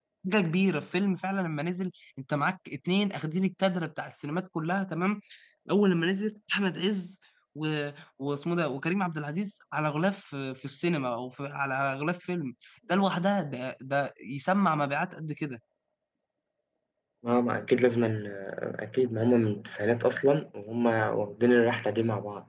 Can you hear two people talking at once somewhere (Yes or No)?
No